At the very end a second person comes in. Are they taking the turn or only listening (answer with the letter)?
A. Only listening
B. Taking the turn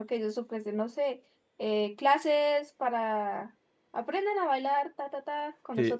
B